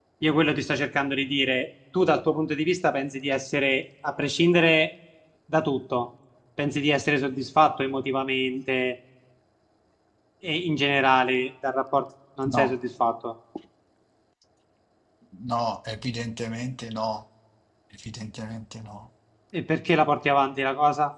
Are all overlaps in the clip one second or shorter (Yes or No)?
Yes